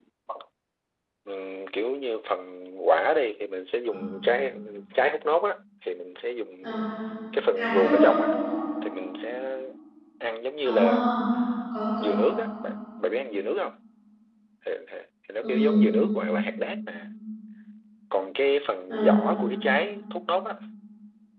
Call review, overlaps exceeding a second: none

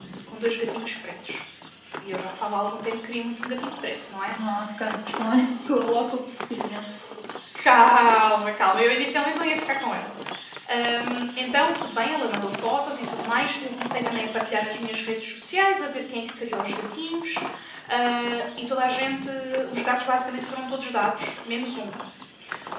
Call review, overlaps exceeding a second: none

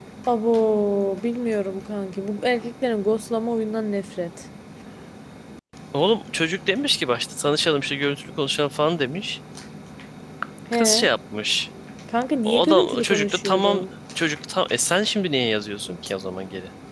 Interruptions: present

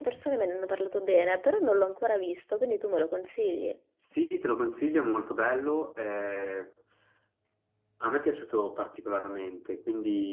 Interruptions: none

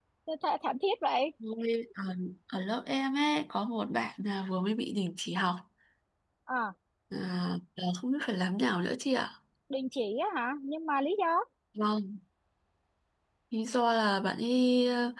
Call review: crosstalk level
none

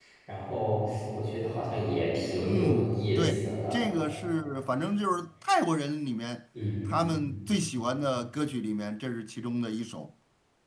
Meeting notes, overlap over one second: present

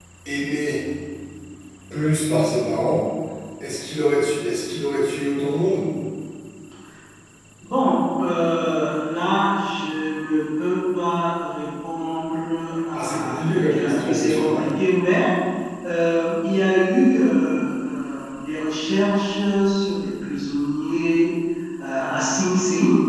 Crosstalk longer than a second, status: present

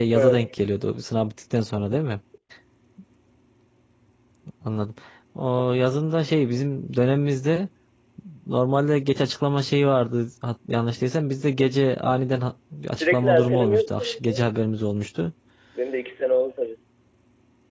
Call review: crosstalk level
present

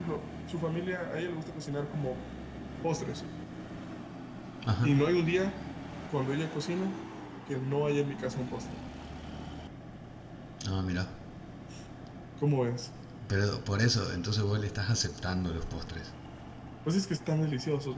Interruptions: none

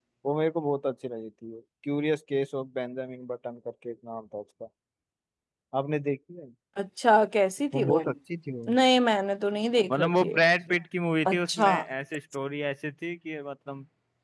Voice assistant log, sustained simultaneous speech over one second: none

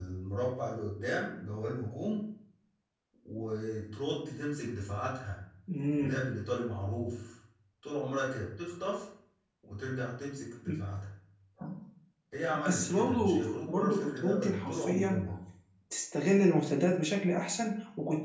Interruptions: present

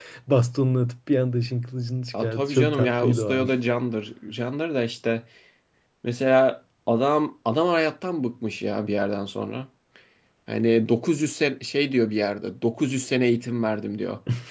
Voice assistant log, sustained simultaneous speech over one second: present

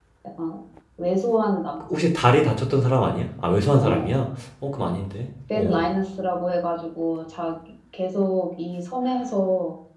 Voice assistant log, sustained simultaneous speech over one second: none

